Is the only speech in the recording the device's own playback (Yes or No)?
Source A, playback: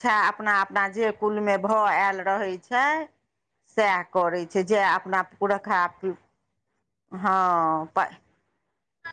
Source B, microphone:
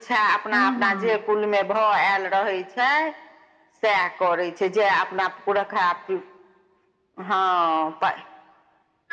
No